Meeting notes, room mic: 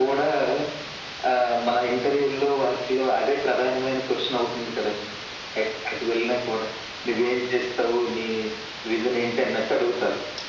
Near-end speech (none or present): none